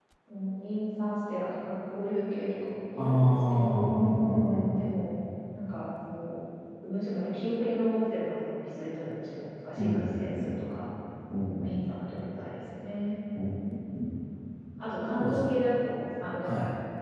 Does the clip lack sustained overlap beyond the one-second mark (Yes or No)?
No